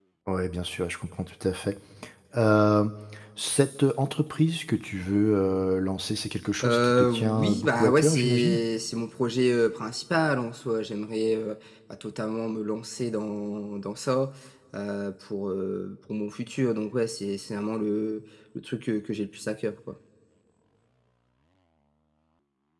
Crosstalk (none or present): present